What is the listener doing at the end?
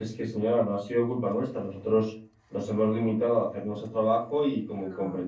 listening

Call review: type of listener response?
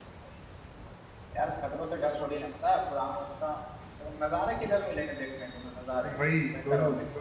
taking over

